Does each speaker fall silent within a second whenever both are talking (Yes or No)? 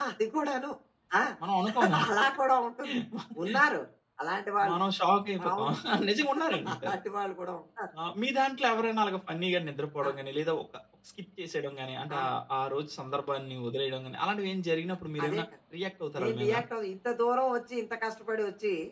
Yes